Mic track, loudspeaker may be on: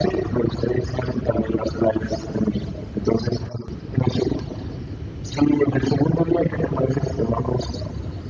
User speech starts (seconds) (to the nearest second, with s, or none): none